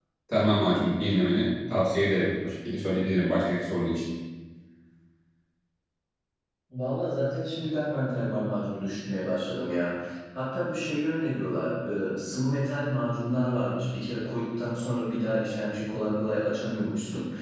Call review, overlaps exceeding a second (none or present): none